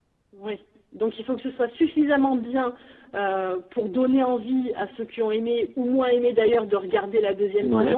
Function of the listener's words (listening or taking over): listening